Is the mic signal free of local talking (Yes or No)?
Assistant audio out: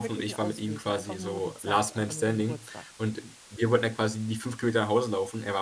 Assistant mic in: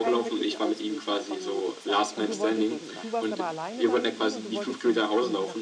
No